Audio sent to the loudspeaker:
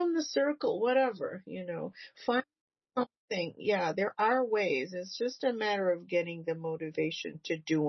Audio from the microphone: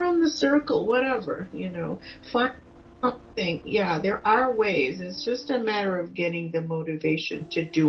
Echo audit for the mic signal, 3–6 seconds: echo only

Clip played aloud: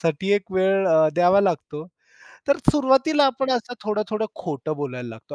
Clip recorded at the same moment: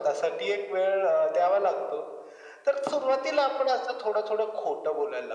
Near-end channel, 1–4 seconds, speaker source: echo only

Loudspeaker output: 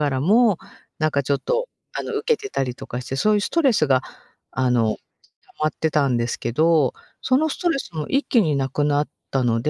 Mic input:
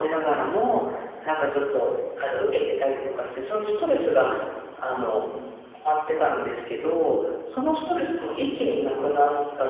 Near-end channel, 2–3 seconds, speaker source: echo only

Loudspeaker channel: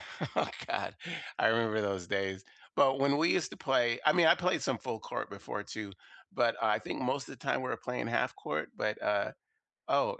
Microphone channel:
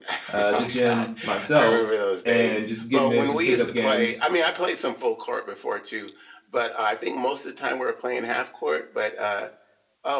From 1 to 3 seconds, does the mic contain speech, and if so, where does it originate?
both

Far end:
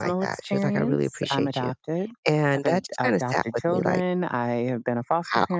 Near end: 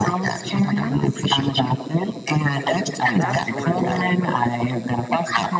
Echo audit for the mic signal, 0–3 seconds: echo only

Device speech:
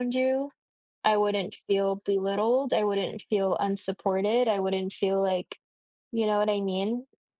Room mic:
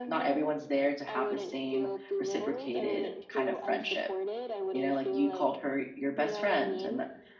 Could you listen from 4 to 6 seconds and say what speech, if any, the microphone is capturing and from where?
both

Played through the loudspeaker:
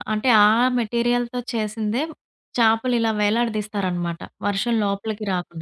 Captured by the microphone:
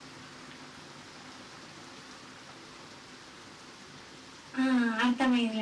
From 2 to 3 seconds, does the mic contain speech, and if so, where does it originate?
neither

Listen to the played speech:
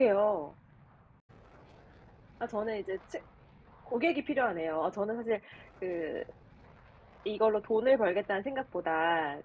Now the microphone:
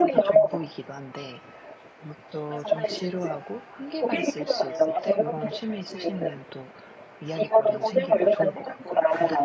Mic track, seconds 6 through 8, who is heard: both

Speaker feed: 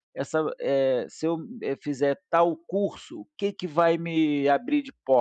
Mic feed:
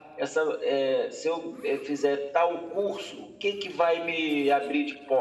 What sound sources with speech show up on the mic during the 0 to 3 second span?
echo only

